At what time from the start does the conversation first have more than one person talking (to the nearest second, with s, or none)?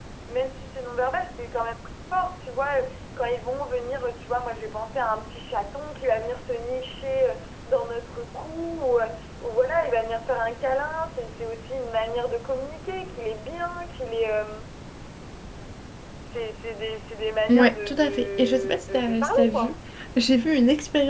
17 s